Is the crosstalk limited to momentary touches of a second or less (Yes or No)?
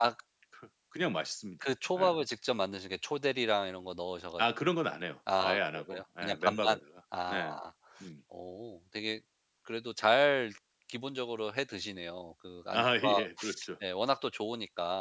No